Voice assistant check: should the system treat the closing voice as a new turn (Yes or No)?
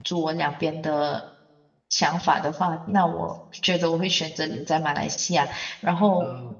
No